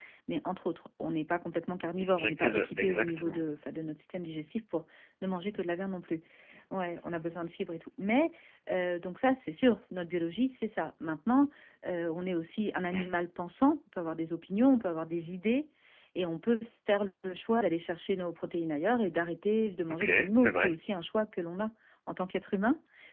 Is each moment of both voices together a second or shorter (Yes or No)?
No